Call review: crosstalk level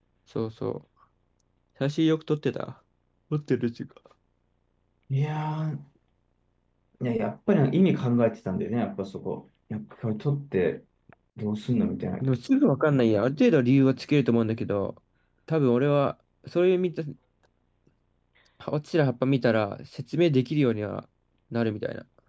none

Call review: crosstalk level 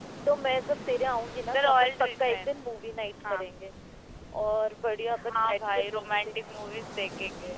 present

